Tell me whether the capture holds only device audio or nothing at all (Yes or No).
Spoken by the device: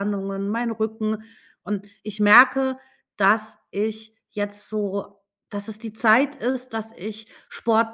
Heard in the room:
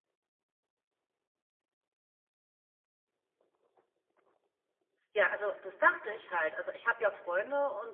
No